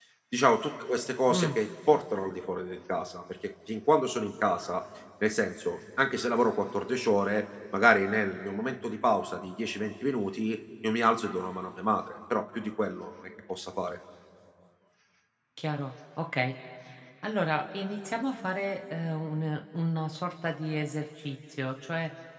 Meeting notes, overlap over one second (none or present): none